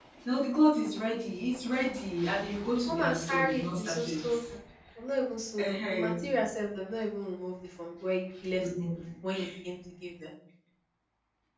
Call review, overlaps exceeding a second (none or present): present